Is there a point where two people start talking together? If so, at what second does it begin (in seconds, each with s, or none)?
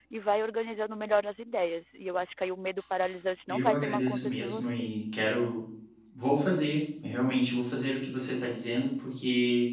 3.5 s